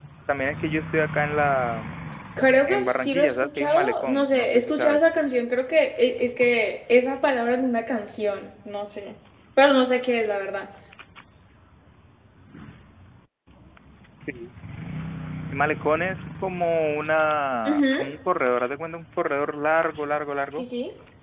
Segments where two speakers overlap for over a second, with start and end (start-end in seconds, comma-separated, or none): 2.7-5.0